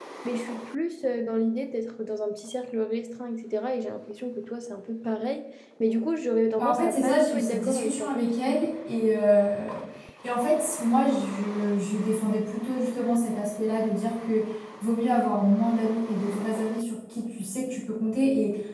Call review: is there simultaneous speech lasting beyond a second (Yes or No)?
Yes